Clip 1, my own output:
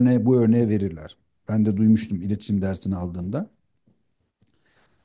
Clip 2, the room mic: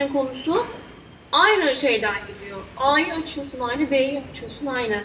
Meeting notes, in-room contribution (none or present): present